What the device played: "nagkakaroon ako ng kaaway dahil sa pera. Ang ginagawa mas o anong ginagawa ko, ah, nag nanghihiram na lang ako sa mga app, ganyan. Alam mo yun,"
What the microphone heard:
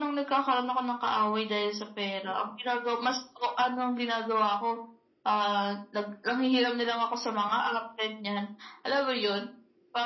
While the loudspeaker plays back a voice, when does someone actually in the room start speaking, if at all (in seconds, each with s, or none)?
none